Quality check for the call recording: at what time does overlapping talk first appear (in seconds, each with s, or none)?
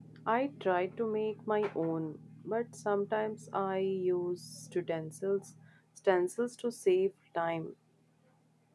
none